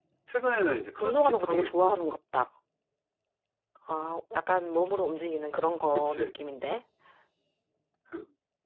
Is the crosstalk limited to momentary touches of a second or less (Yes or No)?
No